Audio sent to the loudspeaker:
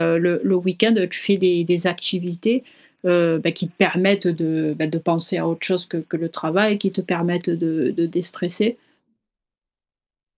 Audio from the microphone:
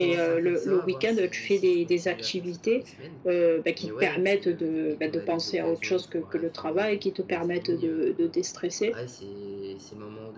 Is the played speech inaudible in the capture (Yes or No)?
No